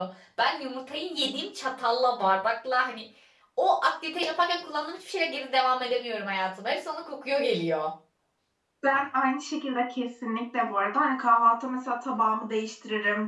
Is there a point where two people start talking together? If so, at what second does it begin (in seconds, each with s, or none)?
none